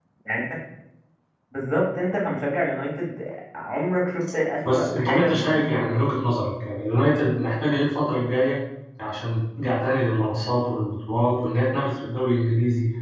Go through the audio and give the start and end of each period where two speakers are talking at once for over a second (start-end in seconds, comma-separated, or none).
4.7-6.2